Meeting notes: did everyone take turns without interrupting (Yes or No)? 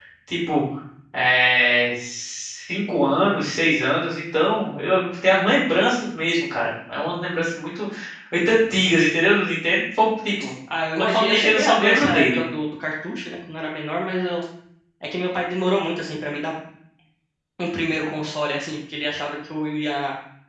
No